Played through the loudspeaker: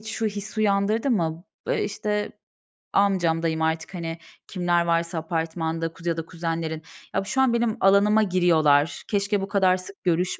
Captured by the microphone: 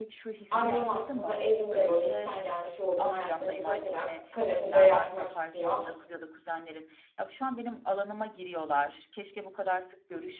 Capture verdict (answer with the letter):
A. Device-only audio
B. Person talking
B